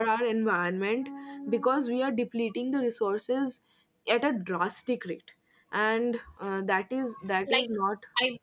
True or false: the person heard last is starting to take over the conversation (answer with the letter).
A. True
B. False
A